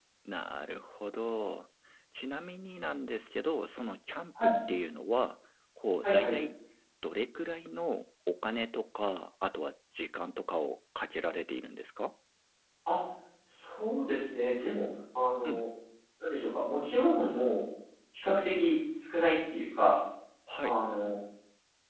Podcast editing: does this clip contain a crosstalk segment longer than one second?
No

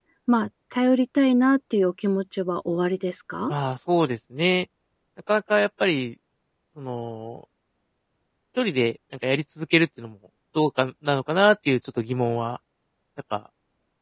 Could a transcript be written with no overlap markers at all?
Yes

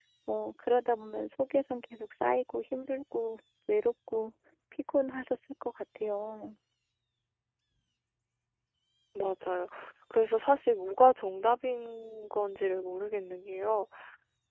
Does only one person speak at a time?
Yes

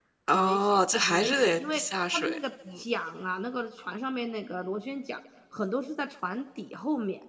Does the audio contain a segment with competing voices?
Yes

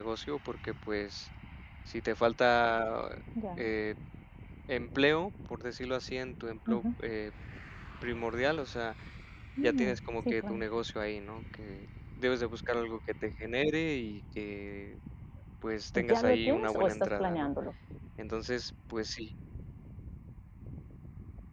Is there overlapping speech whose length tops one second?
Yes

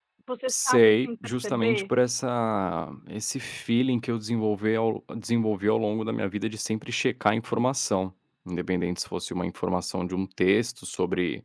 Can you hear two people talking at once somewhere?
Yes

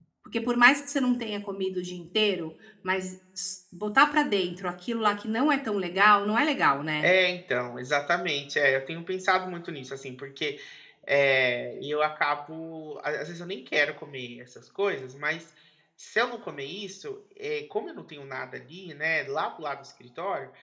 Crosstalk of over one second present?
No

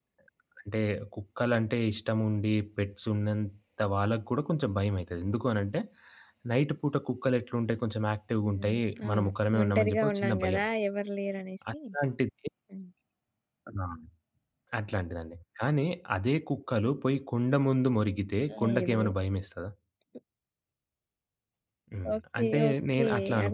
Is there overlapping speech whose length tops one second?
Yes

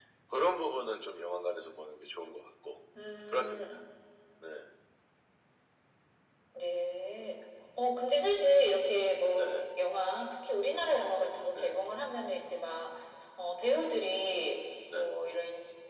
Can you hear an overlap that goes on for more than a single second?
No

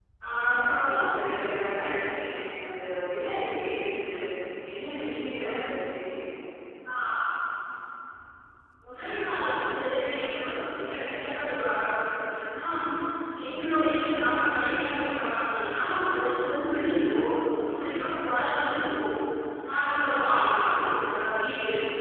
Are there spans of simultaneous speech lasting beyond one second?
No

